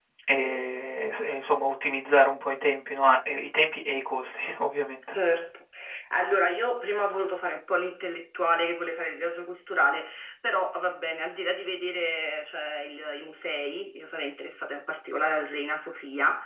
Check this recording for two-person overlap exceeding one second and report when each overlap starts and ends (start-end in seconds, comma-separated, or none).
none